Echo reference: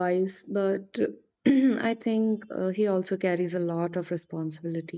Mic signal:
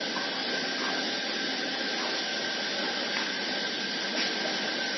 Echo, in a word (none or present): none